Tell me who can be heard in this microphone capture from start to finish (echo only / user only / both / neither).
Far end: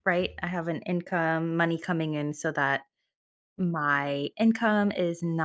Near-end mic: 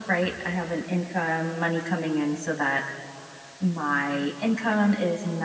echo only